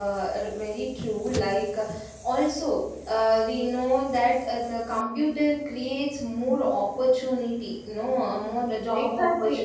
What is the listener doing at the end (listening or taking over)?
taking over